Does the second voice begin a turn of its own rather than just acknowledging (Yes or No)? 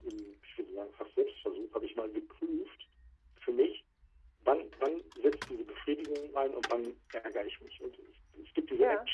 No